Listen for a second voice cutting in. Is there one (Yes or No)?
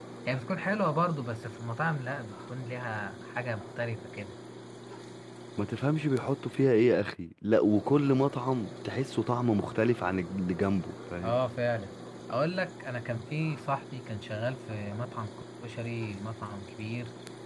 No